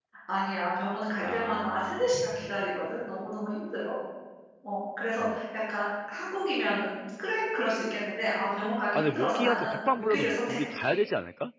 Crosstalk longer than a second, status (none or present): present